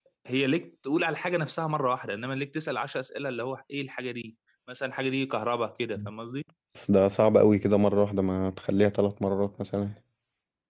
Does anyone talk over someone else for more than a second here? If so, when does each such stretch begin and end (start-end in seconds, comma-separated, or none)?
none